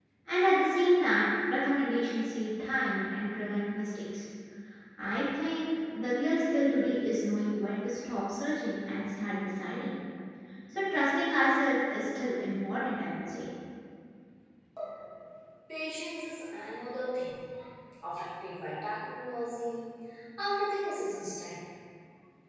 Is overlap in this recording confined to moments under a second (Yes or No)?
Yes